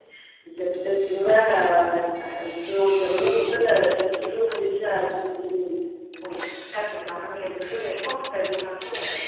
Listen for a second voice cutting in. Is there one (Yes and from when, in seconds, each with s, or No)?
No